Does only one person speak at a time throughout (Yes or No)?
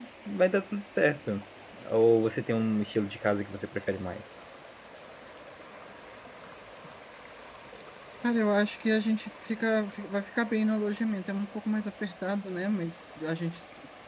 Yes